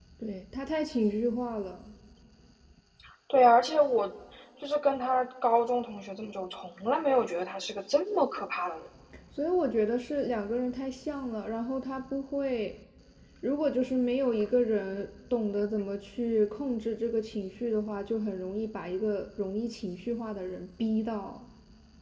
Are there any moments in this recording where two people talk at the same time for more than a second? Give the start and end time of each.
none

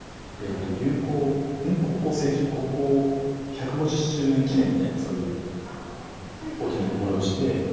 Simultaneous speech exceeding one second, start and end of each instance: none

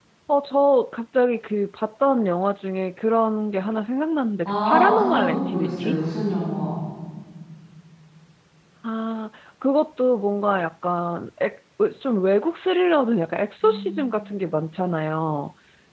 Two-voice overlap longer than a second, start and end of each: 4.4-5.9

